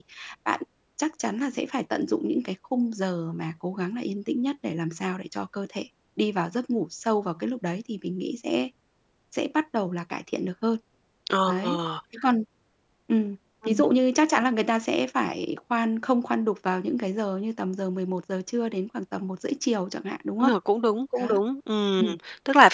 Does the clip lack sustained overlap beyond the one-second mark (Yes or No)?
Yes